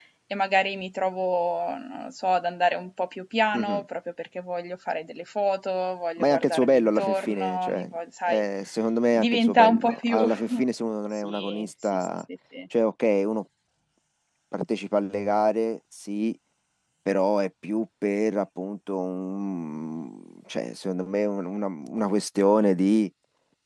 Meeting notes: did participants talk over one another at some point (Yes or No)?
Yes